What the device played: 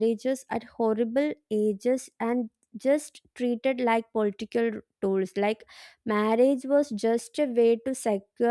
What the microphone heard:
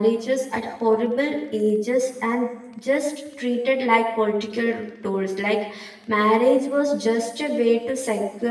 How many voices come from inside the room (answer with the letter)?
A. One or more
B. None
B